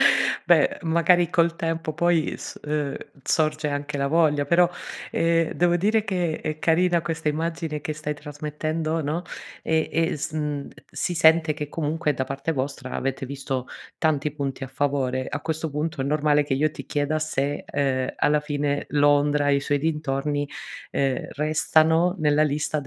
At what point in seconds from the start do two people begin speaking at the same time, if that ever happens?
none

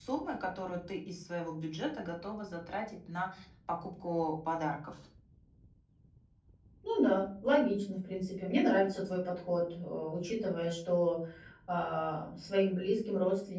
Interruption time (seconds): none

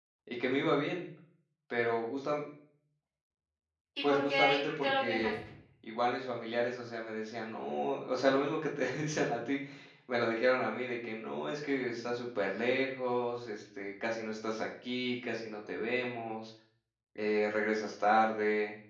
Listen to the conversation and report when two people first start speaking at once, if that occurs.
4 s

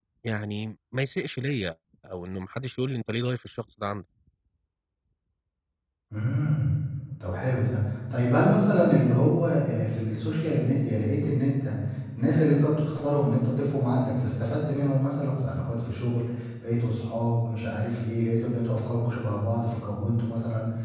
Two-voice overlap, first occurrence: none

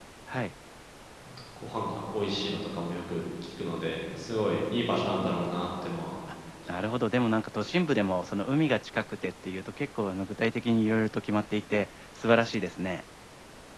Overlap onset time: none

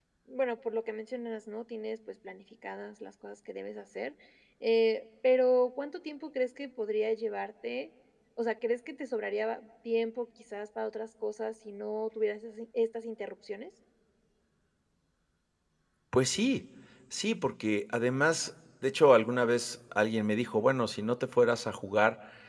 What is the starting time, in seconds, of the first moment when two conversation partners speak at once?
none

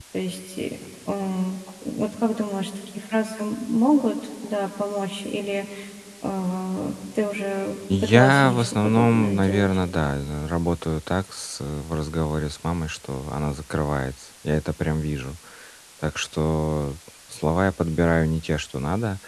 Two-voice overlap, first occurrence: 8 s

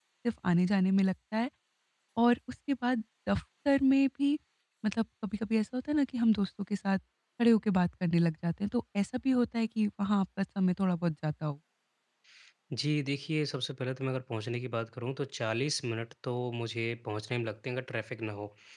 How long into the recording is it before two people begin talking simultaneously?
none

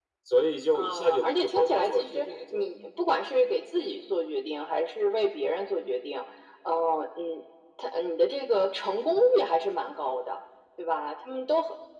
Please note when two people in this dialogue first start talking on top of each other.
1 s

